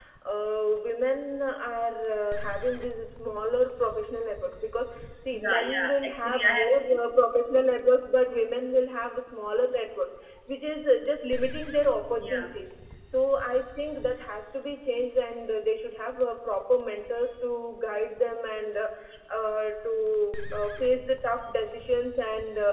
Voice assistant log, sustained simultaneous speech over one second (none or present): present